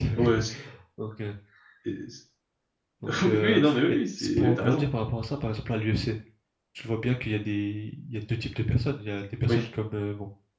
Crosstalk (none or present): present